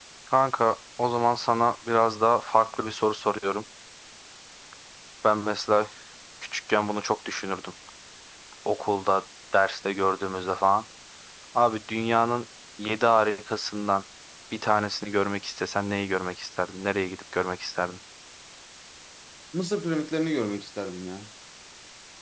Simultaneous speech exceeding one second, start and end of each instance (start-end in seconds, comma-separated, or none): none